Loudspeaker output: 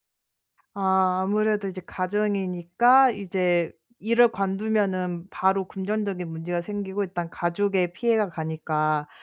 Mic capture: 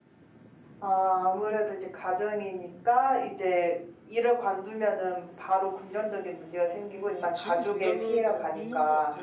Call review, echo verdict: present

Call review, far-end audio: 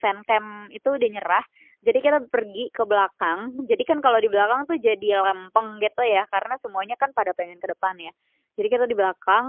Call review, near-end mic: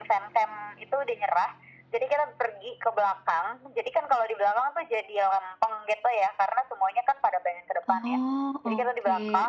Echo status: present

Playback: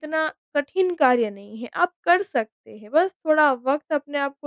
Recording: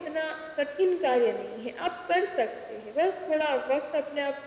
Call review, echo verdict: present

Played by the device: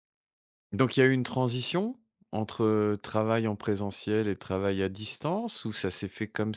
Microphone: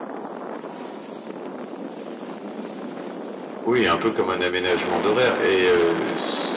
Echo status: none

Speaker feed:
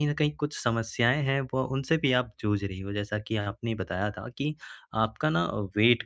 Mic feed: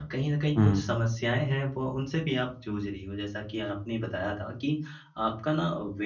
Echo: present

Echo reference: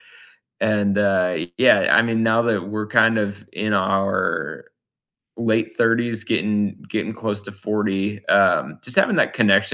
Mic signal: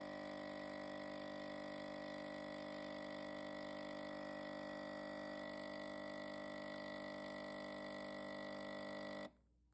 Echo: none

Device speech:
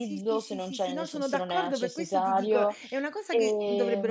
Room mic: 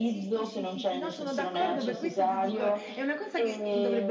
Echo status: present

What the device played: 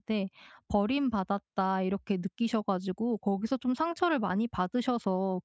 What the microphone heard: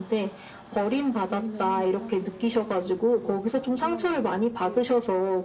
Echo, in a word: present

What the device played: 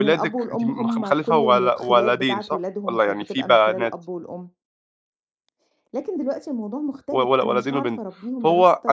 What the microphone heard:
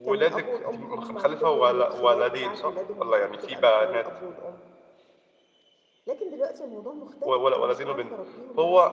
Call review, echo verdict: present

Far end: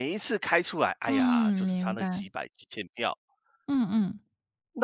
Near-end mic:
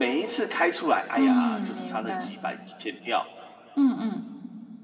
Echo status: present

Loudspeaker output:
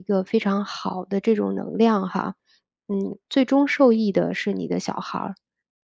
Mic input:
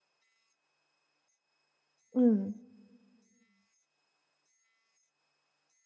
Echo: none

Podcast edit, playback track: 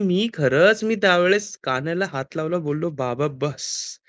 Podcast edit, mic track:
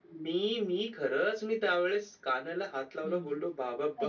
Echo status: present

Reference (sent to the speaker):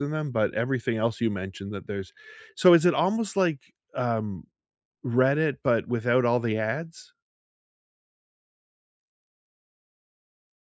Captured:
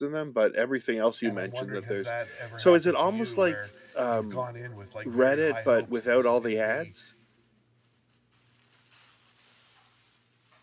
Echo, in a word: present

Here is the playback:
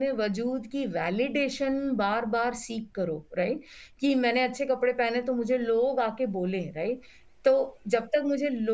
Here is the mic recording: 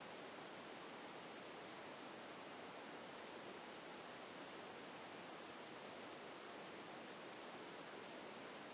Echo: none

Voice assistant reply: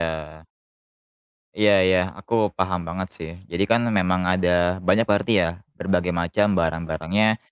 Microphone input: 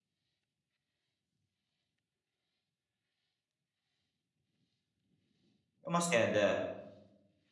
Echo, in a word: none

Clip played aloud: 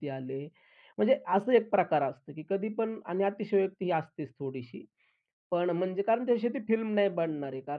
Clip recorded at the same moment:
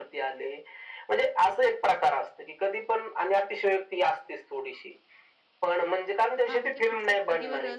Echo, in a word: present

